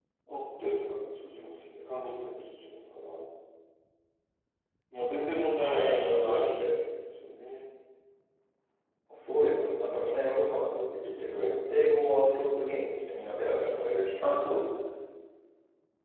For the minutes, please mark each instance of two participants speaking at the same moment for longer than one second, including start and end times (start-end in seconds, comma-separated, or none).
5.1-6.7